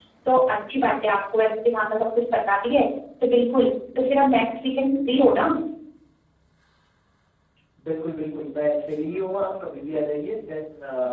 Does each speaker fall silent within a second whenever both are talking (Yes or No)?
Yes